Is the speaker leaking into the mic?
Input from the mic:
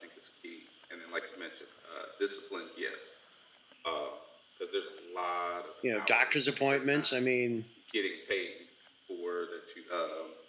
Yes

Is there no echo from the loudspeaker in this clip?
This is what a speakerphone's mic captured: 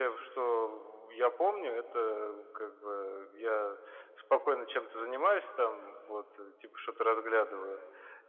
No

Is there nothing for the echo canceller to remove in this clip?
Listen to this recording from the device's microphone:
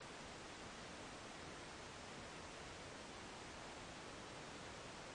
Yes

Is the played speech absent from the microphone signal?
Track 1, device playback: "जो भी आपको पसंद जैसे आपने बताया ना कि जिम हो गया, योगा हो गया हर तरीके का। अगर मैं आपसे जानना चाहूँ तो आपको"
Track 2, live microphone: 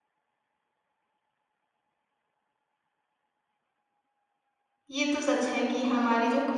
Yes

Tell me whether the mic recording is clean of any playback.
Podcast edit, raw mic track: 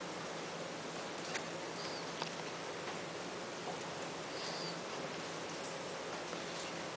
Yes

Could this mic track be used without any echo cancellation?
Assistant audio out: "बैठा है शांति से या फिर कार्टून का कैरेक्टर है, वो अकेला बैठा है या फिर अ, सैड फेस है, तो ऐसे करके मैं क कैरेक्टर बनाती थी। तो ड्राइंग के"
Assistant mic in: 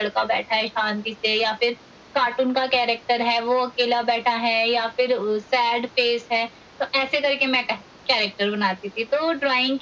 No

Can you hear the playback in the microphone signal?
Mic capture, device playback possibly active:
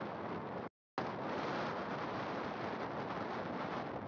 No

